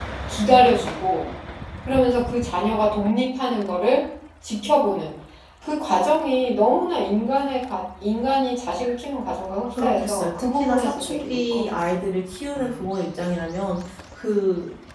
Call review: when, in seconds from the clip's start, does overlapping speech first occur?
9.8 s

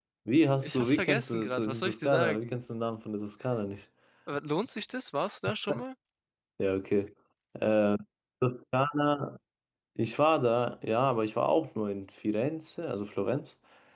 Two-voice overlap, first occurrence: 0.6 s

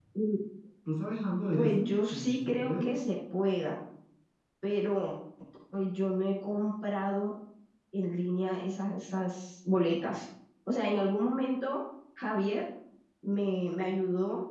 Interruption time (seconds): 1.5 s

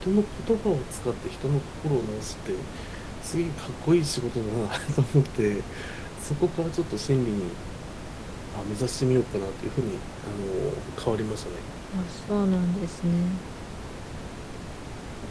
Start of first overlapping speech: none

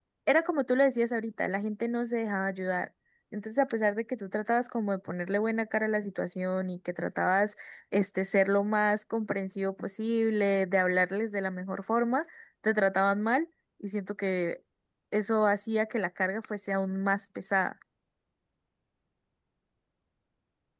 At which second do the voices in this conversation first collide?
none

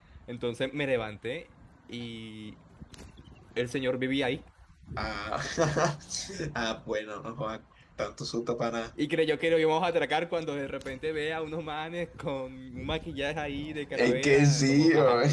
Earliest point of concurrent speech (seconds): 13.9 s

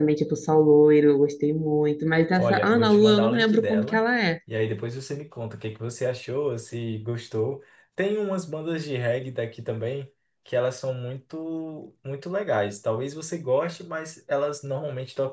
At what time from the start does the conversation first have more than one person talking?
2.4 s

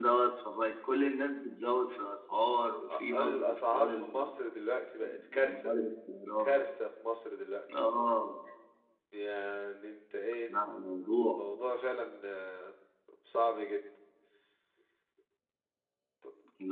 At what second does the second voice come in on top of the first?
2.9 s

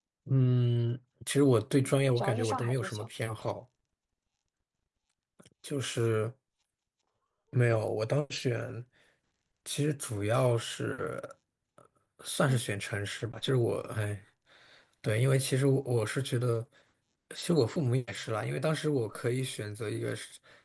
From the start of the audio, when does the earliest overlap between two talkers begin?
1.8 s

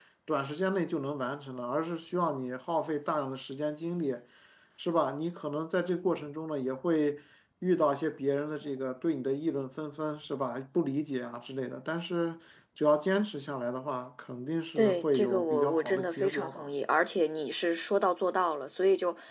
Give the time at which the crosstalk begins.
14.8 s

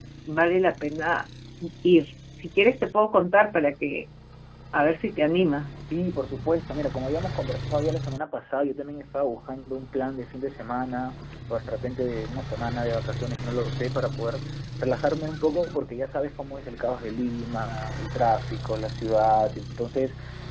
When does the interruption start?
none

